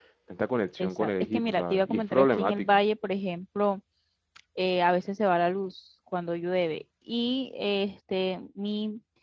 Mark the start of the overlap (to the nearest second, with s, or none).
1 s